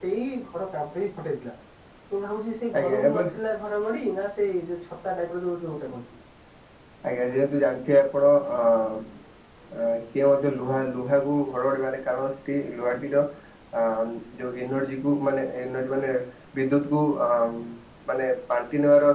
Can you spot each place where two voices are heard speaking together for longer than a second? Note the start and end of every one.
none

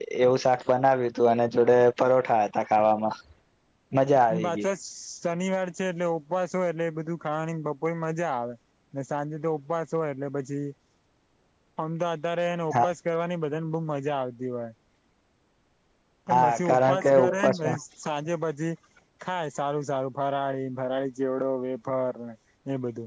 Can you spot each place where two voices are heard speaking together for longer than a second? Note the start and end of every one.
16.4-17.8

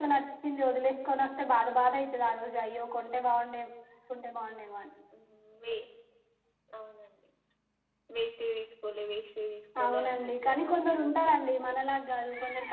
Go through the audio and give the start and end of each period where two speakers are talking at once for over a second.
9.8-11.3

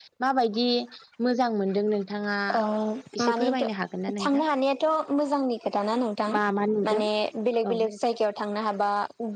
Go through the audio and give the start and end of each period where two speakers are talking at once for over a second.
none

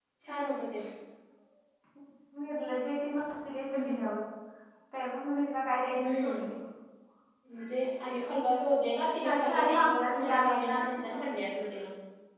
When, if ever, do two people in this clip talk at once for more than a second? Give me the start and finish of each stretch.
9.2-10.8

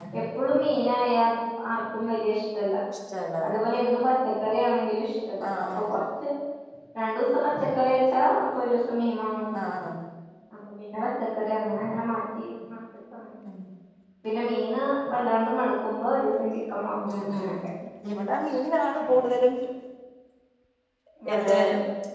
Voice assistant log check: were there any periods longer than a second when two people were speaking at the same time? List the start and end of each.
none

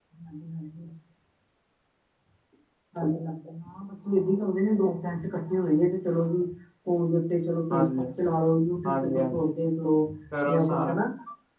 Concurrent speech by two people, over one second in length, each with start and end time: none

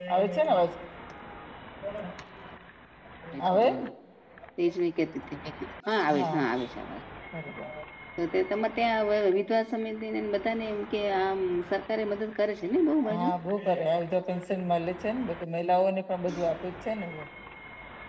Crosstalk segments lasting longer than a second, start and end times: none

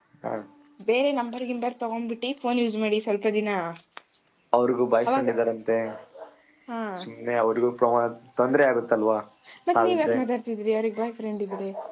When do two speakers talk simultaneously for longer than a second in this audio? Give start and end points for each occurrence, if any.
none

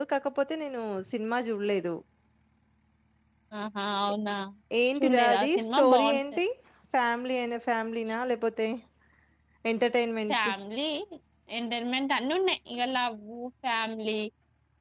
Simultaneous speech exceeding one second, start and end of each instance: 5.0-6.2

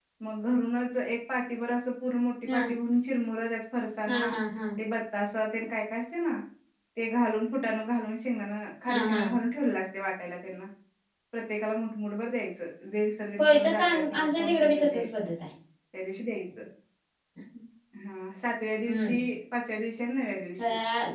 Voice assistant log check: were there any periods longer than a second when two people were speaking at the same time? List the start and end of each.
13.4-15.0

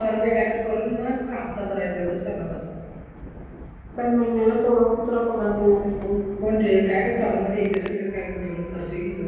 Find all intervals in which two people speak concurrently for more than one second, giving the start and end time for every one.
none

